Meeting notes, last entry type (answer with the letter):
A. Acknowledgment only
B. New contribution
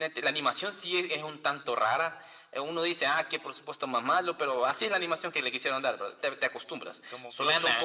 A